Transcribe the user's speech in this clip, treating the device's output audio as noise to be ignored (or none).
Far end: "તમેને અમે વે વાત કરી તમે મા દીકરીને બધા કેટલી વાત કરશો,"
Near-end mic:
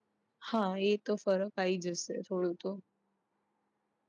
હા એ તો ફરક આઈ જશે થોડું તો